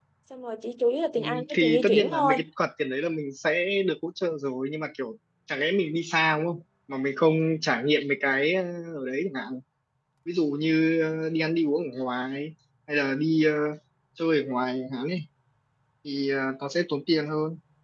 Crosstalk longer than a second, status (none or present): present